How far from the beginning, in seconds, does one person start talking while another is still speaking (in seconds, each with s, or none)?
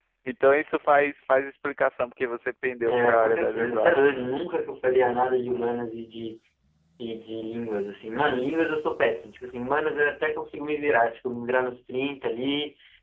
2.8 s